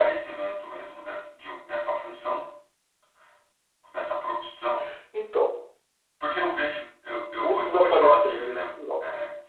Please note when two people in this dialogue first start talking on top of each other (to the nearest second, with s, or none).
7 s